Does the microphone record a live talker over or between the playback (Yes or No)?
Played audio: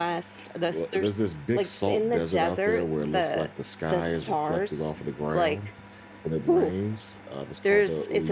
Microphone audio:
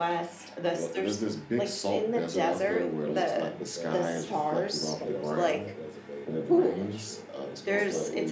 Yes